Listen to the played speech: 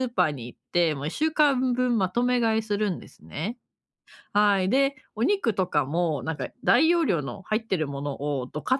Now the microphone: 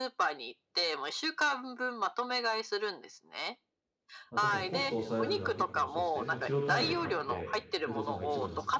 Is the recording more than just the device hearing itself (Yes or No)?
Yes